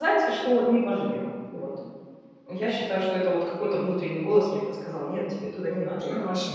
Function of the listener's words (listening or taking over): taking over